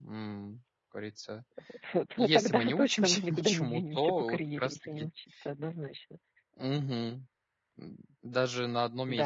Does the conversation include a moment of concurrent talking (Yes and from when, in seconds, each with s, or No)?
Yes, from 2.2 s